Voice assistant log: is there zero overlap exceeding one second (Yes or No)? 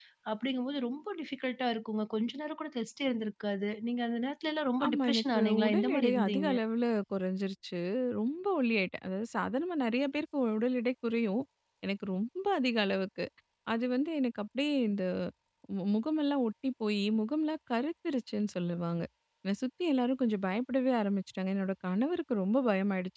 No